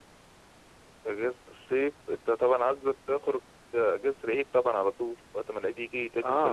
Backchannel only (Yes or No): No